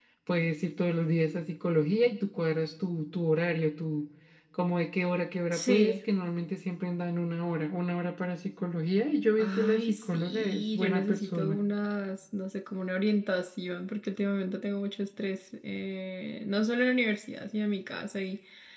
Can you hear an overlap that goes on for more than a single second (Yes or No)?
Yes